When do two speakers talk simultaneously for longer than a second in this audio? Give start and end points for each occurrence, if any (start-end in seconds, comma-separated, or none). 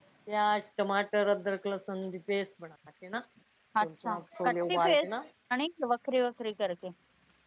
3.8-5.1